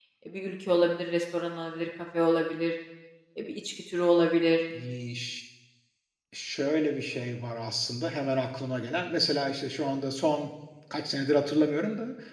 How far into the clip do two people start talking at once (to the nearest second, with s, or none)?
none